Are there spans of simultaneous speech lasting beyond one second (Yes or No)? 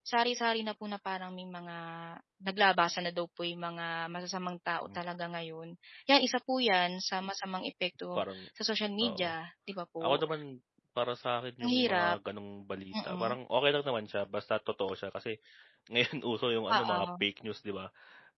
No